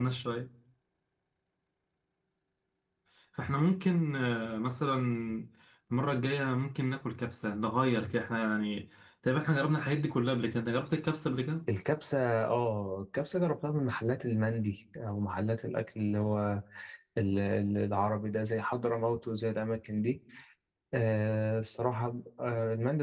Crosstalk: none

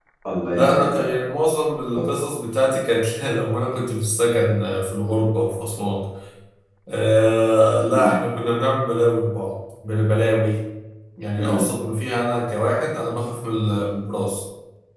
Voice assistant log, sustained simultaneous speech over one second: none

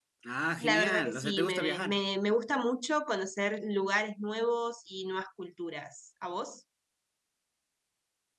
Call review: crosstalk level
present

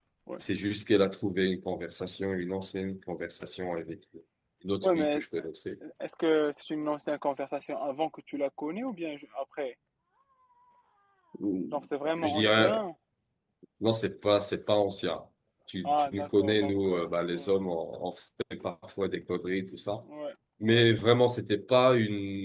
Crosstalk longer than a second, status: present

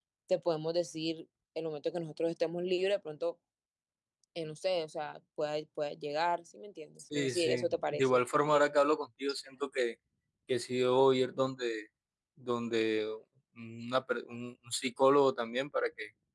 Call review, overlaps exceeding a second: present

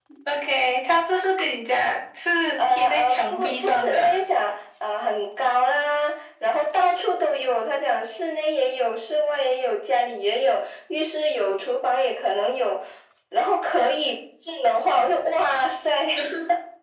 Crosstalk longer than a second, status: present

